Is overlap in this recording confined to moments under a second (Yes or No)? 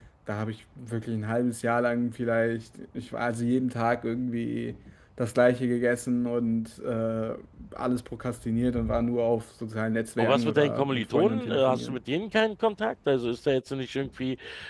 No